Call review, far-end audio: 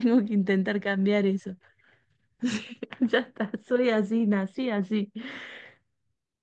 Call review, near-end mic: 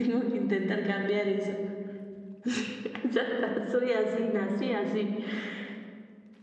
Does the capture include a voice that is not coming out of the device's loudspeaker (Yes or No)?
No